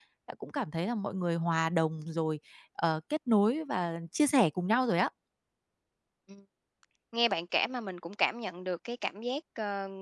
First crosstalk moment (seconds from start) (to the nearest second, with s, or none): none